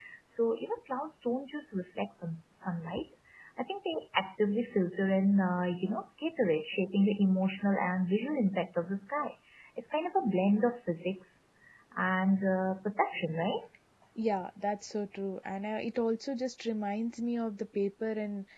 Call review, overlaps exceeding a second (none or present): none